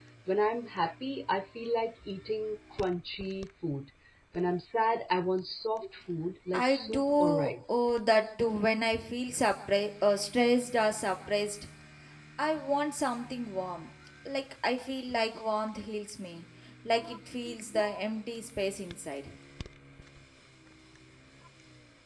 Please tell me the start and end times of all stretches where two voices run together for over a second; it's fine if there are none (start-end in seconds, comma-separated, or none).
6.5-7.8